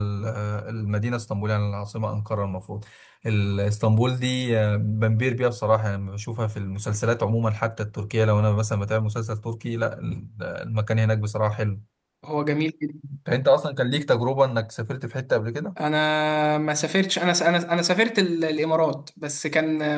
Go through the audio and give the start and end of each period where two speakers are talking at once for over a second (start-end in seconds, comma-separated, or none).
none